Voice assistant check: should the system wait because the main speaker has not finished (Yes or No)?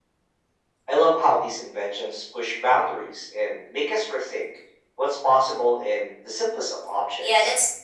No